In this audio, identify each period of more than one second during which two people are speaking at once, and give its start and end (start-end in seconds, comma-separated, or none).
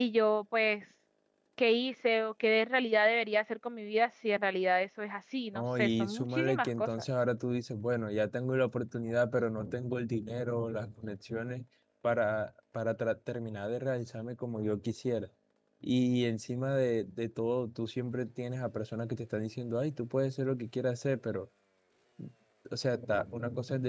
5.5-6.9